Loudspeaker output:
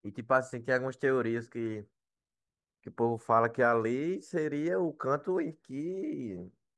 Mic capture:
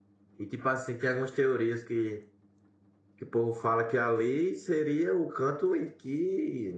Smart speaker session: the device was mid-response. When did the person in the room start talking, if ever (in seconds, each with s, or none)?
none